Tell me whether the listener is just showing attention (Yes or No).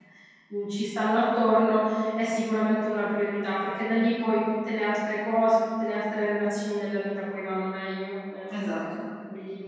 Yes